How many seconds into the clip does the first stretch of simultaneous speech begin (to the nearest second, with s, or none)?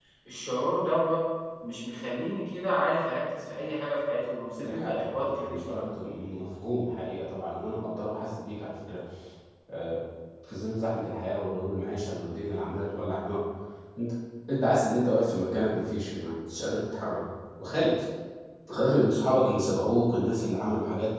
5 s